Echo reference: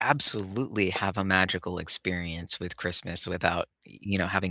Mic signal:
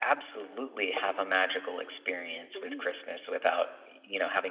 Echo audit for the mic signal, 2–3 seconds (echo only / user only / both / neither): both